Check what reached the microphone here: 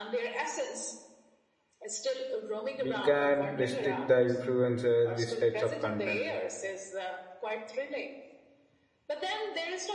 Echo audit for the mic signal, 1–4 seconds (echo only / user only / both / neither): both